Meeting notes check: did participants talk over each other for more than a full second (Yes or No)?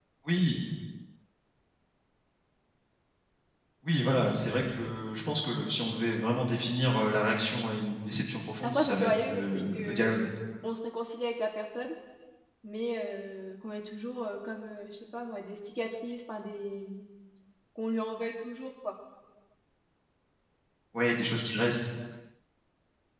Yes